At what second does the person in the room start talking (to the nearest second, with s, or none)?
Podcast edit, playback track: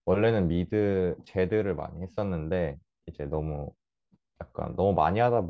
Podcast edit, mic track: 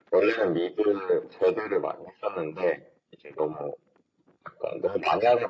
none